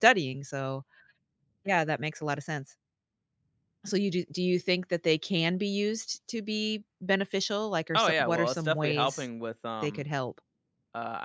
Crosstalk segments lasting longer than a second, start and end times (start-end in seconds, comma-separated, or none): 7.9-9.2